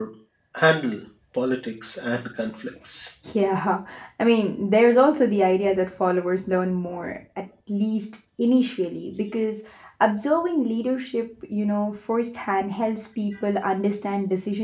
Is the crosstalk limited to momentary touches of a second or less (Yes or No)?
Yes